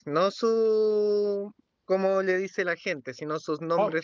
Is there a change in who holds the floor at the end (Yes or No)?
Yes